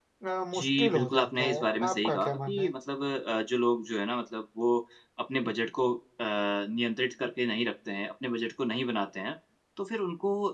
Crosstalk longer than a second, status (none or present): present